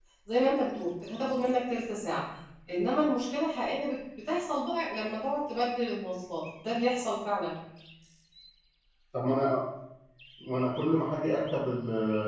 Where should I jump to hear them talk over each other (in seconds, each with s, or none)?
none